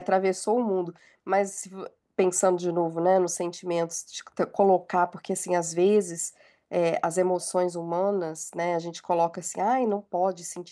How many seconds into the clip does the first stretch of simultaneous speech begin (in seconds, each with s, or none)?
none